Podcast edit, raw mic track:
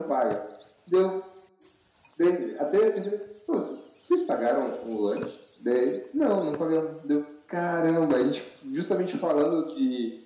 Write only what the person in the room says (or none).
none